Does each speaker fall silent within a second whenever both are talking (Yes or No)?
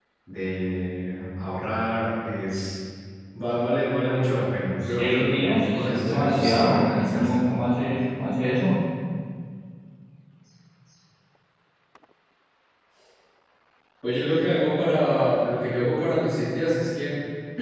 No